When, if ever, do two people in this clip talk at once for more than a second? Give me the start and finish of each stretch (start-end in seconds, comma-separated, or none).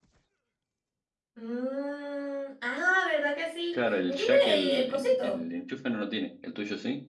3.7-5.4